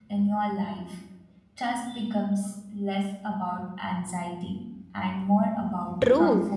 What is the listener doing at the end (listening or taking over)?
taking over